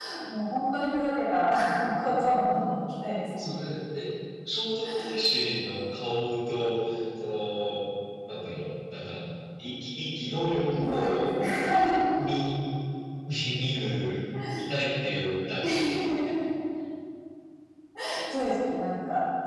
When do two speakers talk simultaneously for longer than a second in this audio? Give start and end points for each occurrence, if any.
none

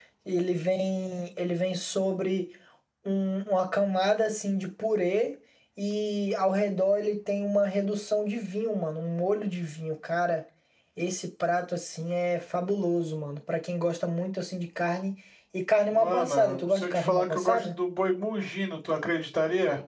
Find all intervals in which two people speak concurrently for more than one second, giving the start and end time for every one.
15.9-17.7

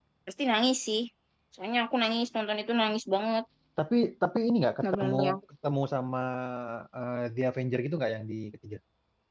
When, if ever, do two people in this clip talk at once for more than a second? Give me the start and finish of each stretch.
none

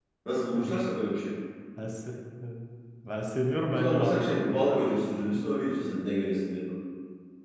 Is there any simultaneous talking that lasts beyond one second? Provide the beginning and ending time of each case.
3.6-4.8

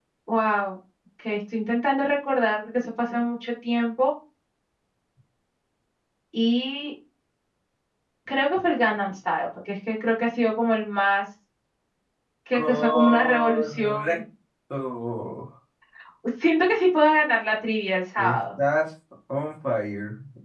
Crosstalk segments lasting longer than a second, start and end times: 12.5-14.2

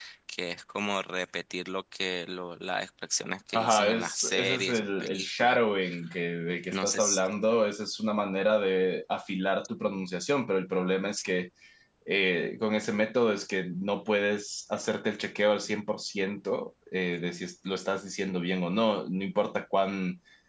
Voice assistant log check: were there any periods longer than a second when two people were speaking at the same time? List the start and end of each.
3.5-5.6

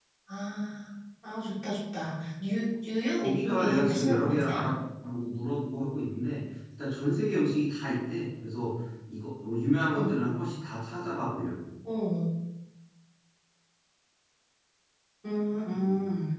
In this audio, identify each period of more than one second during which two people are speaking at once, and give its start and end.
3.2-4.7

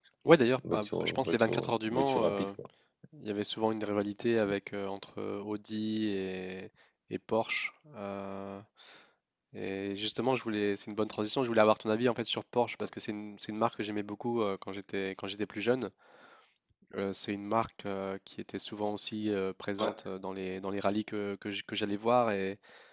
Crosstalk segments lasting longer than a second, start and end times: 0.7-2.5

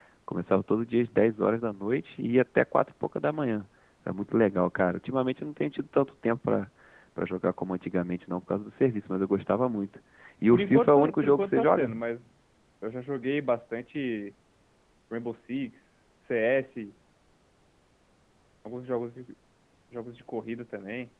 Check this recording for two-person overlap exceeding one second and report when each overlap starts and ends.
10.5-11.9

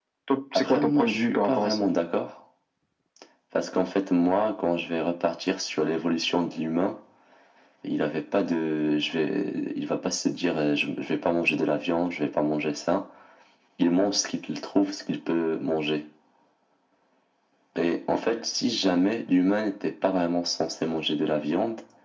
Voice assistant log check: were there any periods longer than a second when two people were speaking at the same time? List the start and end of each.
0.6-1.9

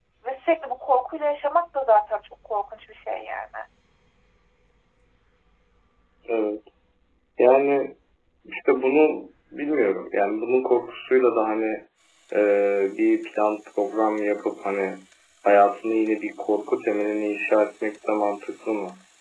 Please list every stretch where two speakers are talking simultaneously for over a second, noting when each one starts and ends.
none

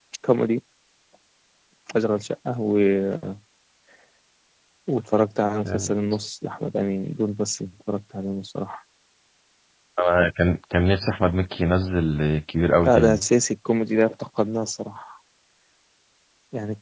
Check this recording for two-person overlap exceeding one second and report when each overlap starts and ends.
none

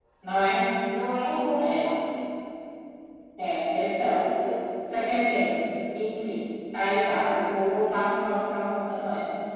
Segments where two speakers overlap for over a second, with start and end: none

